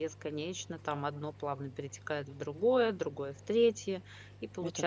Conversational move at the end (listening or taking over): listening